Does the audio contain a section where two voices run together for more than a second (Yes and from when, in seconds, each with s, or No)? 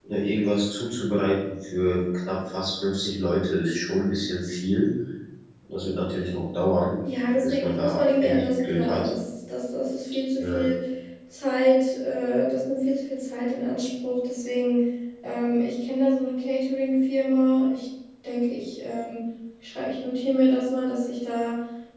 Yes, from 7.4 s